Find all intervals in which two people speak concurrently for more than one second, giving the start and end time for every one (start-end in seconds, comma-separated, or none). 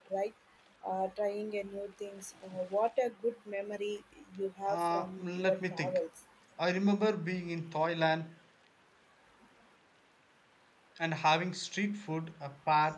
4.7-6.0